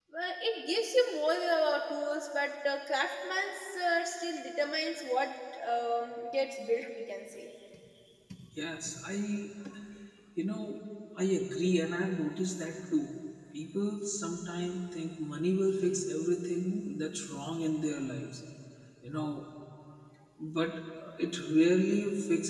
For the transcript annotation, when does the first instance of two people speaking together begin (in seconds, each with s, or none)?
none